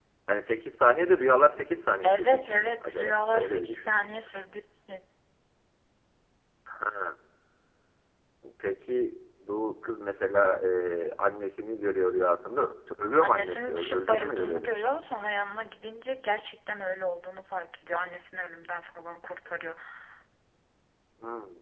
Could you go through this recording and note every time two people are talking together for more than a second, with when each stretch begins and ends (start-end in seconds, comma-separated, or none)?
2.0-4.1, 13.2-14.7